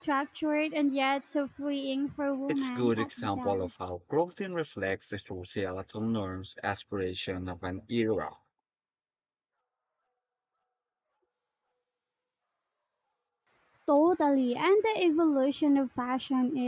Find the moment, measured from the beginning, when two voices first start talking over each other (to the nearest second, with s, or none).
2 s